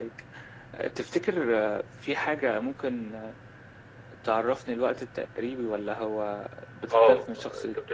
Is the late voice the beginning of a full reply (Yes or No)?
Yes